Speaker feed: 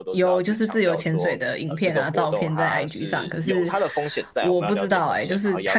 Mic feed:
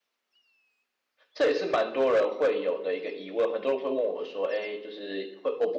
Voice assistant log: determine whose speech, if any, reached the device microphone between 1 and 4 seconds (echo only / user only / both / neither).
user only